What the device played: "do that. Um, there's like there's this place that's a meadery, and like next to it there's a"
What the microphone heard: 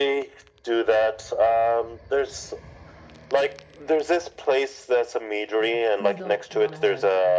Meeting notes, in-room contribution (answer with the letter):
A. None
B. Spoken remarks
B